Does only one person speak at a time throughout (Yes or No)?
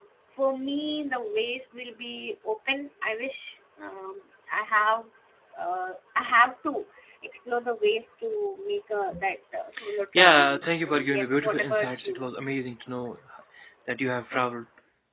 No